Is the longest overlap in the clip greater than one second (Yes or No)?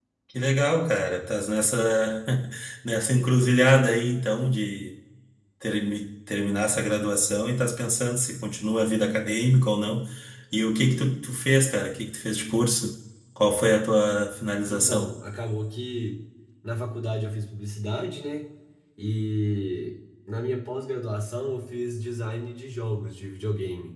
No